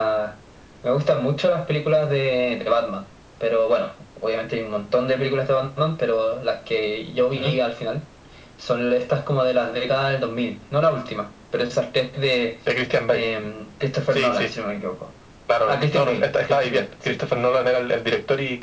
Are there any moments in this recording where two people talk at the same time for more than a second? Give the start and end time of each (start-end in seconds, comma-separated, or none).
15.7-17.2